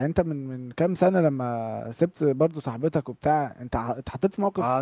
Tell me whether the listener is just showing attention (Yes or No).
No